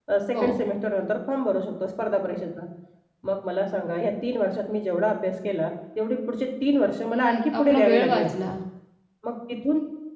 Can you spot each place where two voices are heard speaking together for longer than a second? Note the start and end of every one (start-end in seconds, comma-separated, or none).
7.1-8.5